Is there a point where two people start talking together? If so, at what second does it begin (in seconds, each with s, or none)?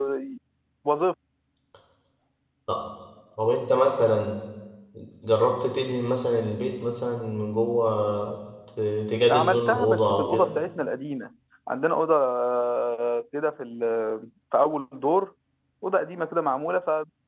9.3 s